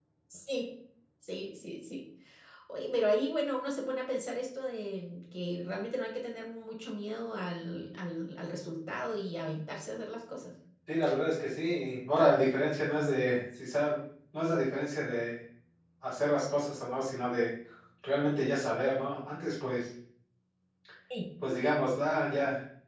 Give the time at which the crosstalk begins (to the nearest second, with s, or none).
none